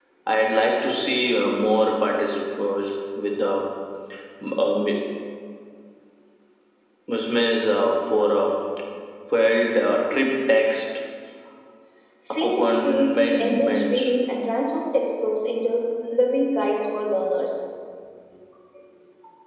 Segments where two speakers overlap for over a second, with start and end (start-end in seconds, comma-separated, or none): 12.4-14.1